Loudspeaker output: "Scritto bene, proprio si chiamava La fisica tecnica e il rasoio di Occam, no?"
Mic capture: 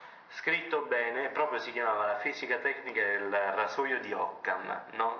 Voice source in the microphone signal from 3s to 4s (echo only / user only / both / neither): echo only